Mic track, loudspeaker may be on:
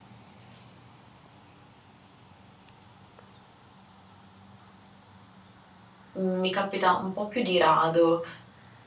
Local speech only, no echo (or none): Mhmm, mi capita un po' più di rado,